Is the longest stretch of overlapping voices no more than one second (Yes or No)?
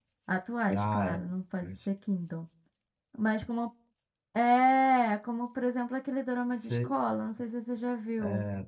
Yes